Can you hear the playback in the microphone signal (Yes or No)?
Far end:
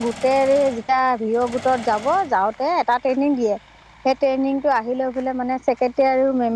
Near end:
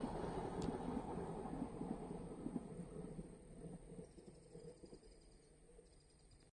No